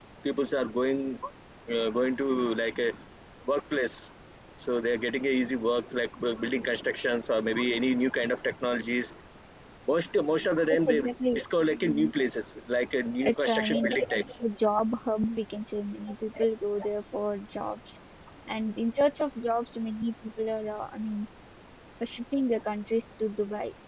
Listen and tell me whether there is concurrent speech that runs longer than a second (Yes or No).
Yes